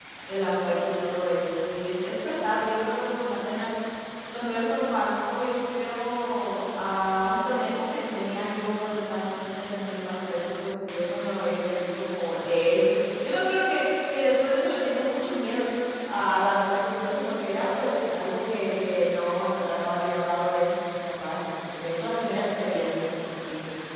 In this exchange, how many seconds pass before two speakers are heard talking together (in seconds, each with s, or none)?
none